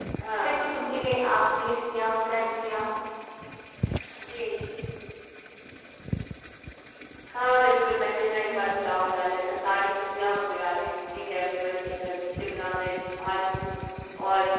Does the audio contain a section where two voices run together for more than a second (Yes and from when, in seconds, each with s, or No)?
No